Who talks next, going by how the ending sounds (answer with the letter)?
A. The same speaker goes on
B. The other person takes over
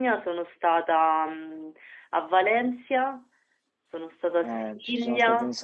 B